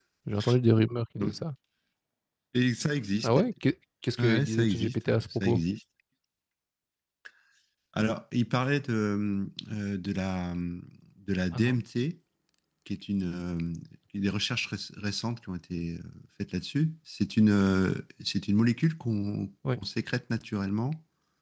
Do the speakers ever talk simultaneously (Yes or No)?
Yes